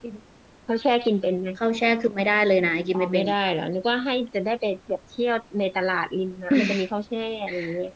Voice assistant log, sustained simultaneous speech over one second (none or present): none